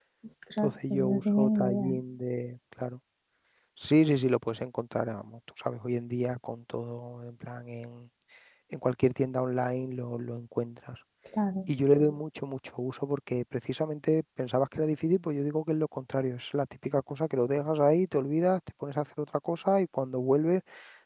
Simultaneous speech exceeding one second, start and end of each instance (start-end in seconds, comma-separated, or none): 0.6-1.9